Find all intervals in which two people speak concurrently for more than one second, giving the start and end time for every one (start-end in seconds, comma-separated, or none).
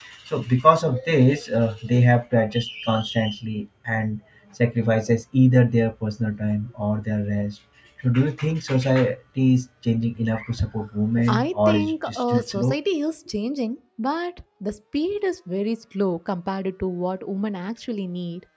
11.3-12.8